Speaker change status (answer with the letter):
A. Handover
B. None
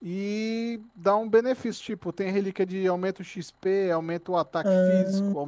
A